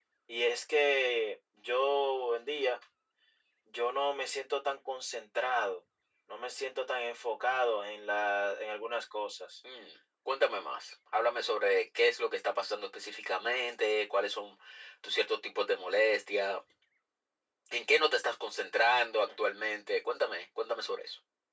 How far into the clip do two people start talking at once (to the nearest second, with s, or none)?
none